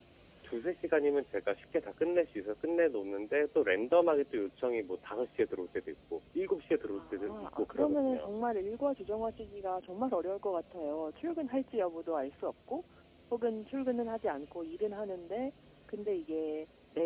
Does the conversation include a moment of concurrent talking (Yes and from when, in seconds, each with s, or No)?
Yes, from 6.9 s